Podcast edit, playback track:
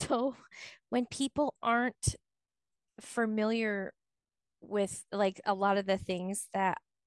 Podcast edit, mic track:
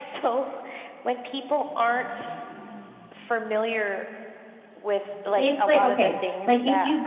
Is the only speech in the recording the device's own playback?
No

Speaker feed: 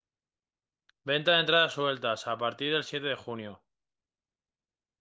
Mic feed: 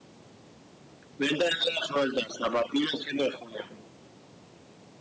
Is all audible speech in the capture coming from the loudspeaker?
Yes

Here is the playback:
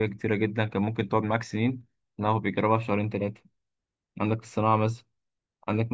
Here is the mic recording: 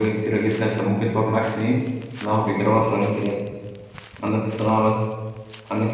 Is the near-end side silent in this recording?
Yes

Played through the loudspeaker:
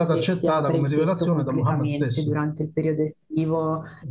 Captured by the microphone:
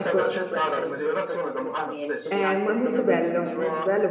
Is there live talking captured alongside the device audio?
Yes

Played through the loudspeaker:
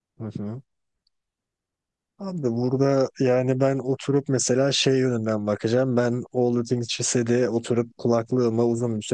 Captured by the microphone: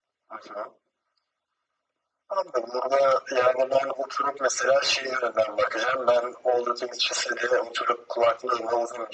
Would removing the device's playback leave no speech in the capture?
Yes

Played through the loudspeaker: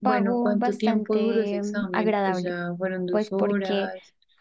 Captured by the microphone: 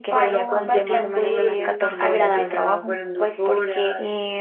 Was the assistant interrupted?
Yes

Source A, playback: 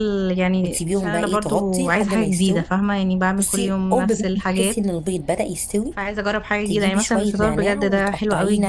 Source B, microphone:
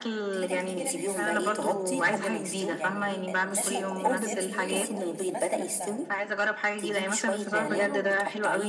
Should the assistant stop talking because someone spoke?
Yes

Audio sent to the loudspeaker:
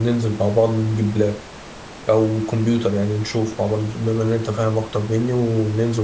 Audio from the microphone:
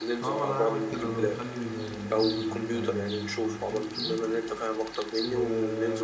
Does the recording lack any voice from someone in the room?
No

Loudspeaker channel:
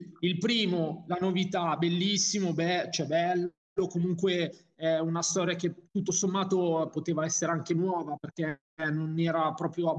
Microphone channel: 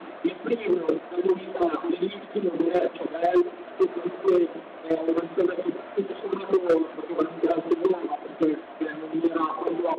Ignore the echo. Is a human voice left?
No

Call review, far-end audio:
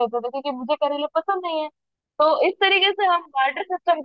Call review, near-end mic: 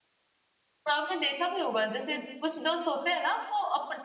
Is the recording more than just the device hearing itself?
Yes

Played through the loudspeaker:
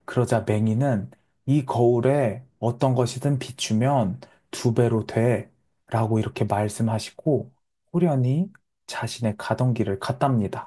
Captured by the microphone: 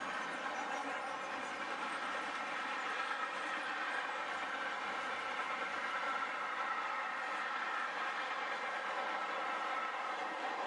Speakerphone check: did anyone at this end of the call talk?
No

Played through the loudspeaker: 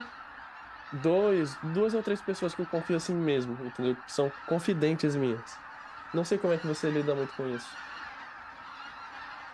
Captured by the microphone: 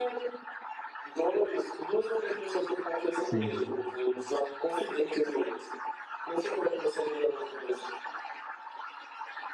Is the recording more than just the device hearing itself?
Yes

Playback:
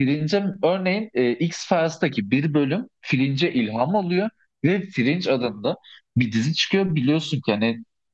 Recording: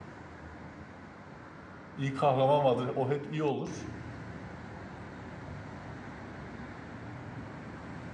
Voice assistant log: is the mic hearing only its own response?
No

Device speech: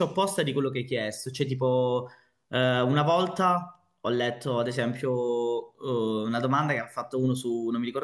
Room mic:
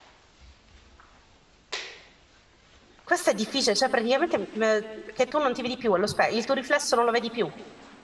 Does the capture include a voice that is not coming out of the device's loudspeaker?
Yes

